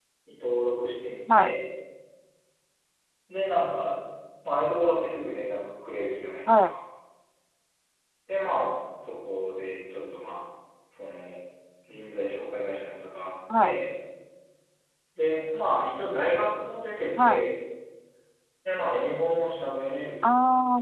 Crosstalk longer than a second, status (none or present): none